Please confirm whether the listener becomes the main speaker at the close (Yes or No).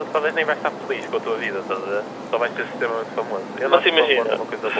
Yes